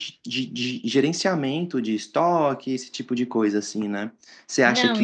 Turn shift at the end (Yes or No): No